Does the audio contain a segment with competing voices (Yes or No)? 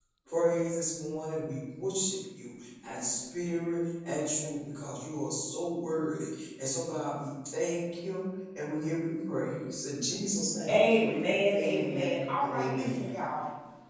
Yes